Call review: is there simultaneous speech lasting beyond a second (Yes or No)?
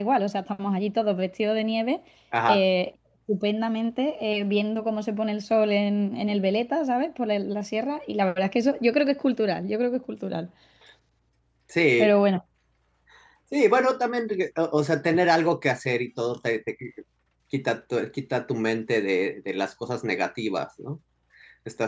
No